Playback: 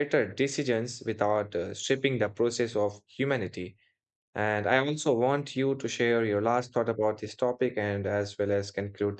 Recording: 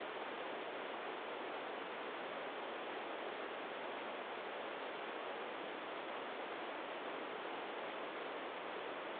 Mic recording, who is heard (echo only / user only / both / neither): neither